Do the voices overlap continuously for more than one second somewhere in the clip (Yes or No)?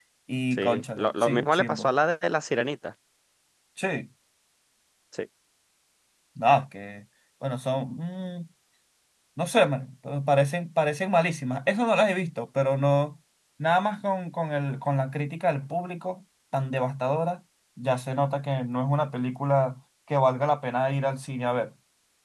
Yes